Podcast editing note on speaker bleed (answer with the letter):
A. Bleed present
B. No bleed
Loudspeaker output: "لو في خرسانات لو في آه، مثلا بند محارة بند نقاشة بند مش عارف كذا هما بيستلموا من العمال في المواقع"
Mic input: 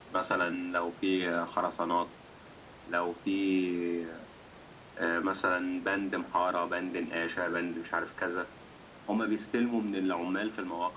A